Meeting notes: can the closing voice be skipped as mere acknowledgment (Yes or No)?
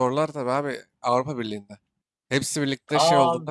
No